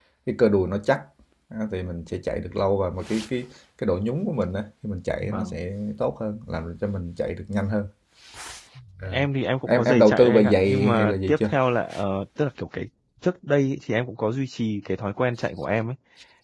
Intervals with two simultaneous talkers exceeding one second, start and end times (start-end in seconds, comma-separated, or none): 9.7-11.5